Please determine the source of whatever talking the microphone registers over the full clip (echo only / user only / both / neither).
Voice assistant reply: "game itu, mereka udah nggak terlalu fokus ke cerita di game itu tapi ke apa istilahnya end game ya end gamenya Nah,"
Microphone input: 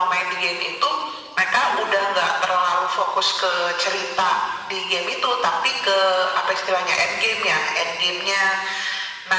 echo only